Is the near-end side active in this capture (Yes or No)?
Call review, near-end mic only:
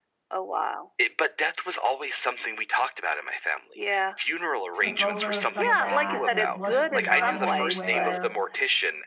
Yes